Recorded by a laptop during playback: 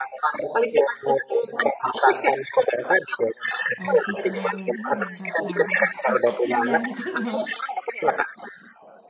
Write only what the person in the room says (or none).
eee, si kembang goyang ini dan rasa gurih dan asinnya, gitu loh,